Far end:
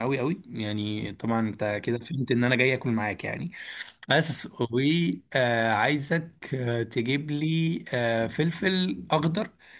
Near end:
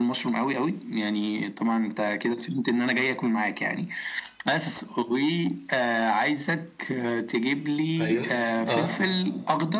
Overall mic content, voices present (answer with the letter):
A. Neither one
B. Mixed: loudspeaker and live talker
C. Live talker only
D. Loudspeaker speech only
B